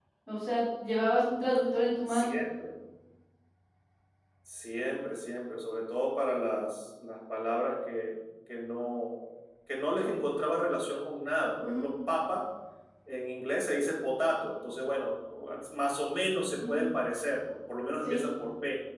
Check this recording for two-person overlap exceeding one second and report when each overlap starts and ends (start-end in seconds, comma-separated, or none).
none